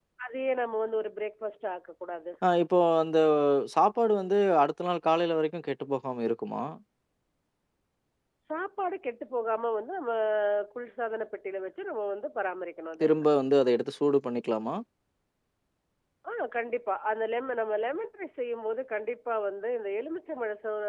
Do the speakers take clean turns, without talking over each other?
Yes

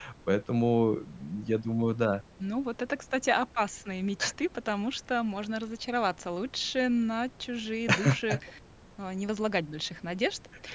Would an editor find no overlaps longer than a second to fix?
Yes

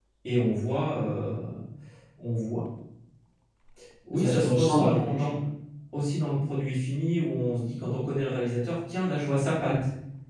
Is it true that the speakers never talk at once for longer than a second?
No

